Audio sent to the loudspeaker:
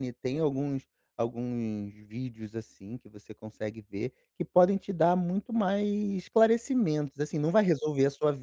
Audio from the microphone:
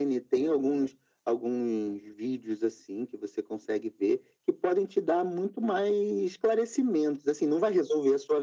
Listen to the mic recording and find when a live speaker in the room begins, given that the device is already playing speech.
none

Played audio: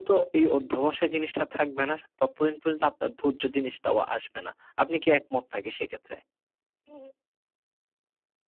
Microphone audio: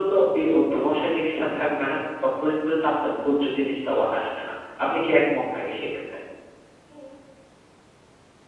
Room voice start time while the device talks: none

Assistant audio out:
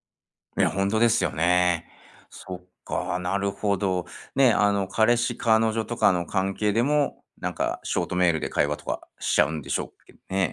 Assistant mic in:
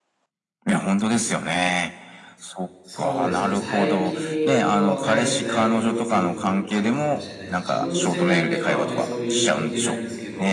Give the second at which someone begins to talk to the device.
2.9 s

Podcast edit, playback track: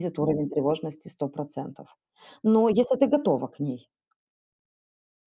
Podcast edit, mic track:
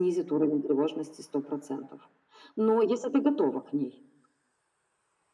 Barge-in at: none

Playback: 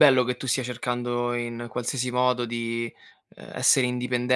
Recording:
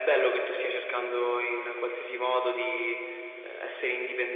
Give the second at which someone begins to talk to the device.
none

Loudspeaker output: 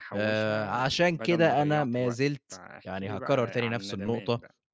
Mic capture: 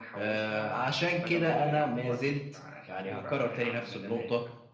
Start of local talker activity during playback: none

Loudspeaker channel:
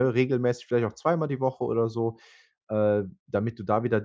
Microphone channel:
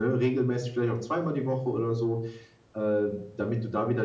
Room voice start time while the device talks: none

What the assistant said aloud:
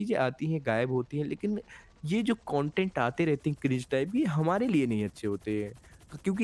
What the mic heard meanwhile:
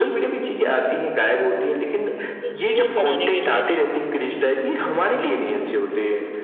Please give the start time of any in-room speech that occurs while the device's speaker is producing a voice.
2.4 s

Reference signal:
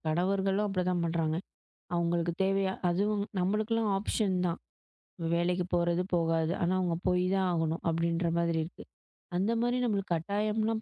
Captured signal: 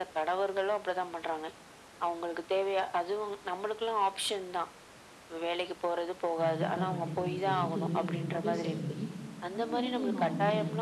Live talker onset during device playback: 6.4 s

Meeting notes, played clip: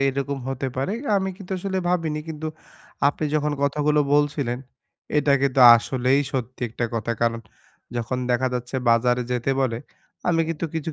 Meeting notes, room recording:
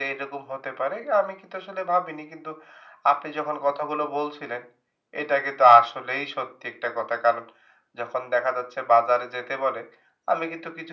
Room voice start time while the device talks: none

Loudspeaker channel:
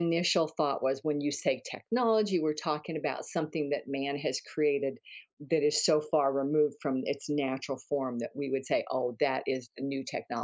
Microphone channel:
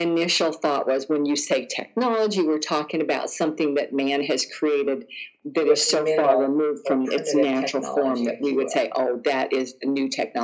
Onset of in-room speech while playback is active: 5.6 s

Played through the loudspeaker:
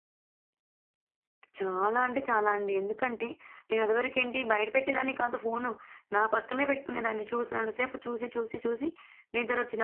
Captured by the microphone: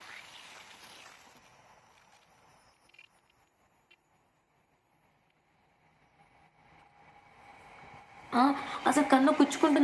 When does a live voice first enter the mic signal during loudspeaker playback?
8.4 s

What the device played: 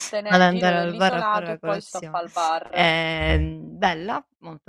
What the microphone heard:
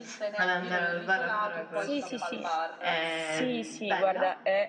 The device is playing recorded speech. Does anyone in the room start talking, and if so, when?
1.7 s

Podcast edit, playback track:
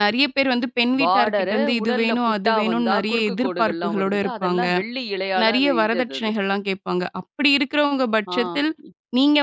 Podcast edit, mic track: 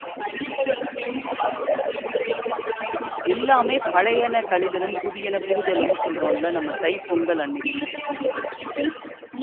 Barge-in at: 3.3 s

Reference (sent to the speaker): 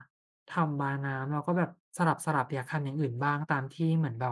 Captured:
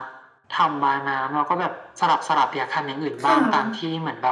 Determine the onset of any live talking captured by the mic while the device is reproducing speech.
3.2 s

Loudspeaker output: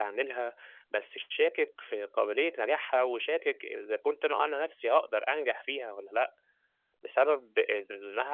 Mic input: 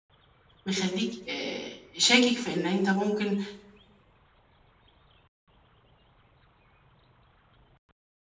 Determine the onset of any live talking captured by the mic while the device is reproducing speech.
0.6 s

